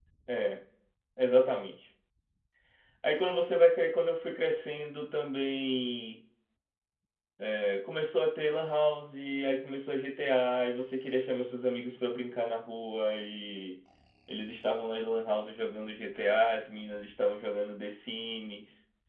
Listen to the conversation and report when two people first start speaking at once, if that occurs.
none

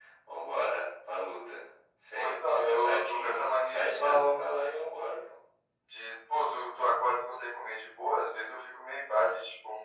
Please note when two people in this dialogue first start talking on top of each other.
2.1 s

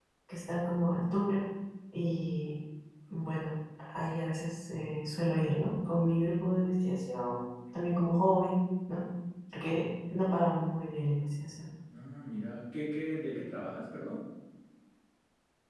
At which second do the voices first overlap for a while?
none

